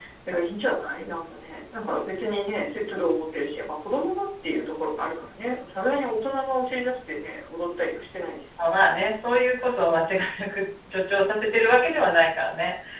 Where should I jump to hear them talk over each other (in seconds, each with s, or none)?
none